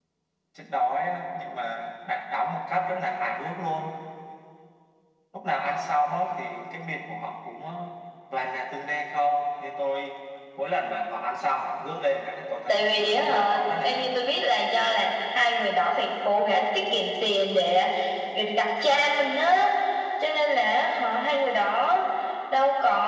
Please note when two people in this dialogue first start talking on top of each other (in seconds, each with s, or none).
12.7 s